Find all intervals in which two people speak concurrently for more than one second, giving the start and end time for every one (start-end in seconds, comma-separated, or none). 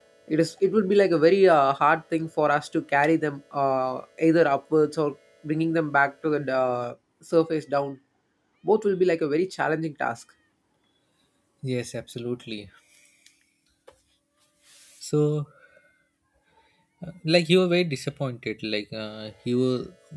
none